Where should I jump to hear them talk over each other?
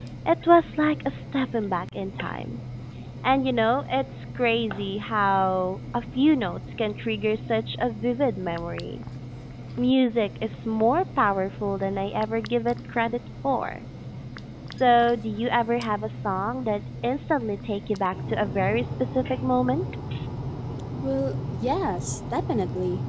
none

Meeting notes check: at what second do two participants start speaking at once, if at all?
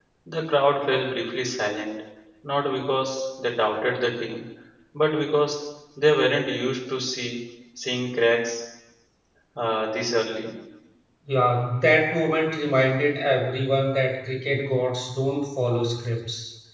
none

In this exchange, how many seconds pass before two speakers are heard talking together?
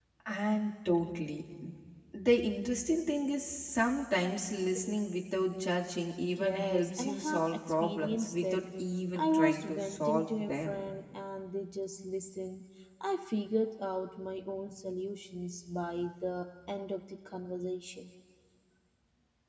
6.3 s

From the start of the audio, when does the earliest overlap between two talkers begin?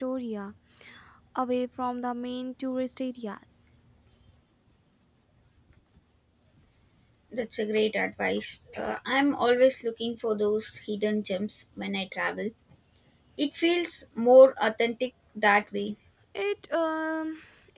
none

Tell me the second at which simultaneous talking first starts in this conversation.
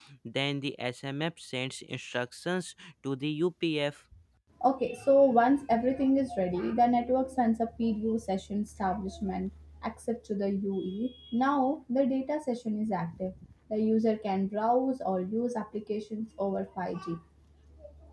none

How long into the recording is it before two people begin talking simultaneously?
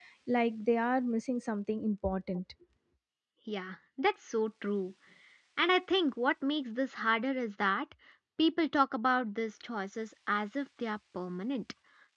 none

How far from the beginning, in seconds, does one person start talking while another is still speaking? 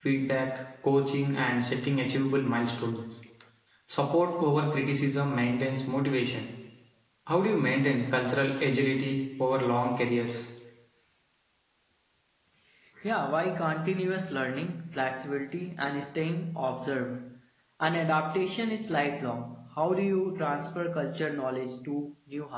none

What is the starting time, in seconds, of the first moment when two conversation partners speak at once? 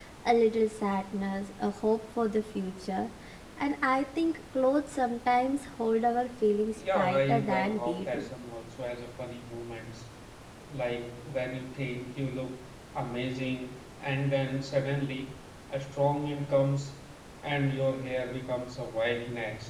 6.8 s

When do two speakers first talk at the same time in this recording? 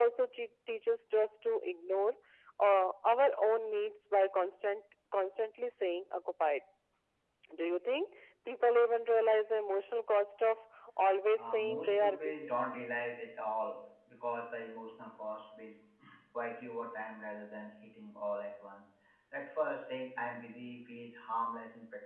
11.4 s

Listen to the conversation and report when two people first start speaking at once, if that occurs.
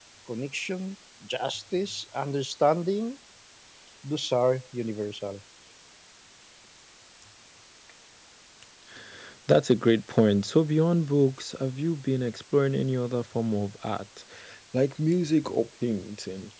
none

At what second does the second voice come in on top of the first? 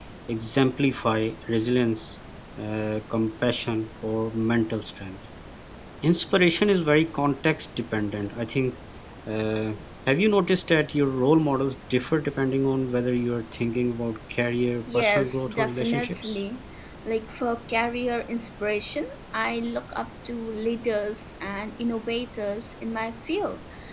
14.9 s

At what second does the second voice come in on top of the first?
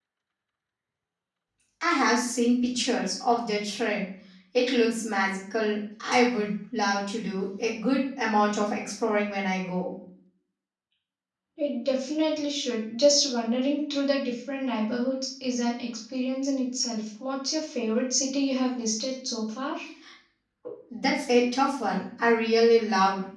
none

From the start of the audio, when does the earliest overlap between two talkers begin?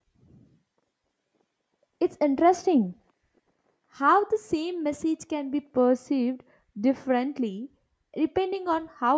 none

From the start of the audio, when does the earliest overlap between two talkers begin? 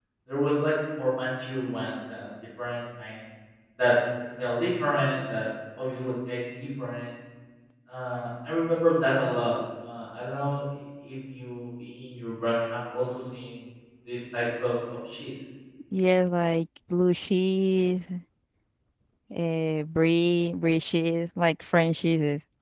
none

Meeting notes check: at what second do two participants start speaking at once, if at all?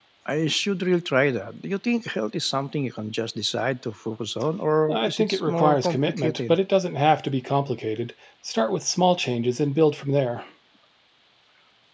4.9 s

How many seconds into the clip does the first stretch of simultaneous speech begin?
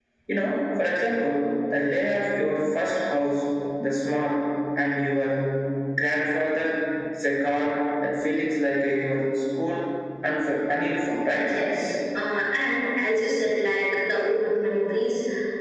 none

